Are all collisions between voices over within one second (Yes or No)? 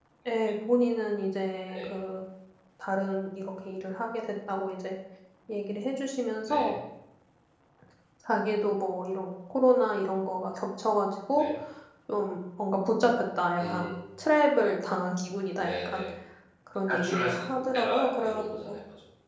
No